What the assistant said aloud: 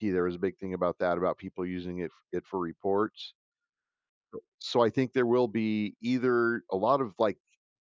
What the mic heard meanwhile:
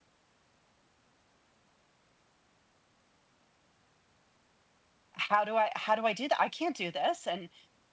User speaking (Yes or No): Yes